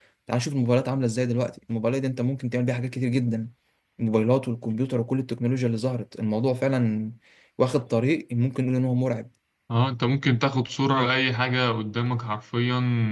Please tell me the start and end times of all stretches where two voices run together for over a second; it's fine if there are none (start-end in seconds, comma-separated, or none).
none